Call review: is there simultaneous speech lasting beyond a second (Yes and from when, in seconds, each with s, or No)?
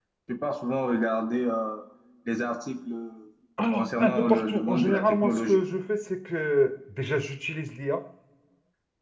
Yes, from 3.7 s